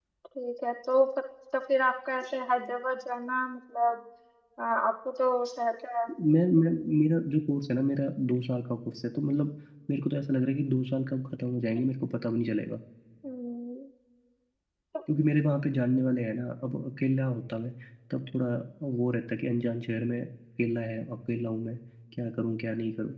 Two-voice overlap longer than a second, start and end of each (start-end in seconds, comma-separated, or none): none